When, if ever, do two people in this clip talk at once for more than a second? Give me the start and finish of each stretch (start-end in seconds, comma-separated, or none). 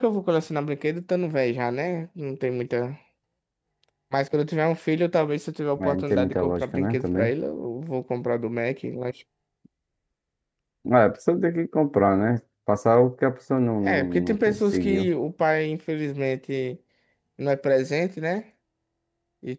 5.8-7.3, 13.8-15.1